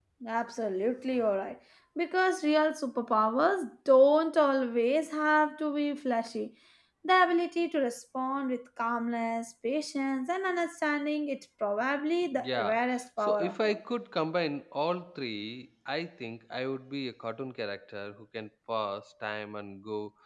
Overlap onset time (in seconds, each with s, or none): 12.2 s